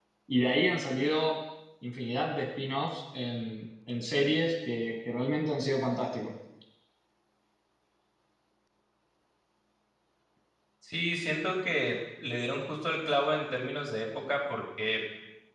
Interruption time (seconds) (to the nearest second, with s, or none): none